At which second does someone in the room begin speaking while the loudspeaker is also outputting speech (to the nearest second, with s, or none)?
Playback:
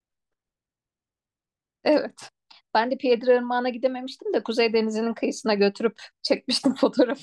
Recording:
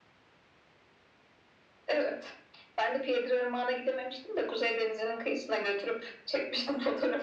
none